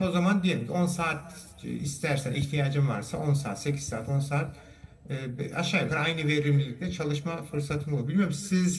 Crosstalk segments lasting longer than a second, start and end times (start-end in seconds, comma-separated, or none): none